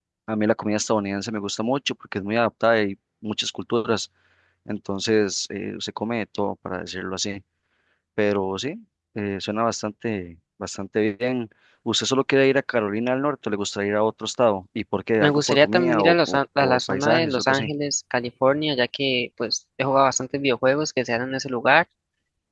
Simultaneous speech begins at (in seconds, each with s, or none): 15.2 s